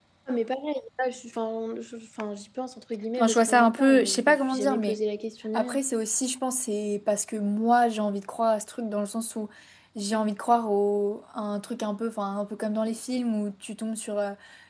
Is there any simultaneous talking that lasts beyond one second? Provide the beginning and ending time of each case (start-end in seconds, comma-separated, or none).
3.2-5.0